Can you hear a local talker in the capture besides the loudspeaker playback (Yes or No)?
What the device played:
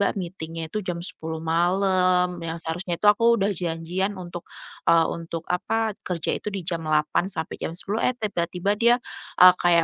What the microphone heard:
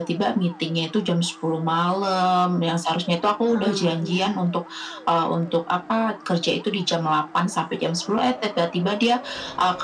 Yes